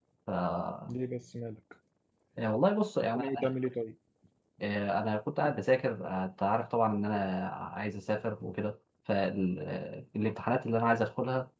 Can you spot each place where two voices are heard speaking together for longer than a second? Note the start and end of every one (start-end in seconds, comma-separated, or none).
none